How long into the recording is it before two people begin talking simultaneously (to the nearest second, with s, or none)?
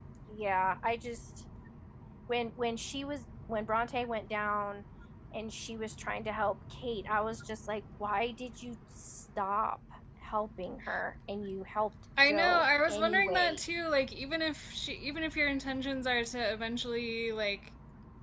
12 s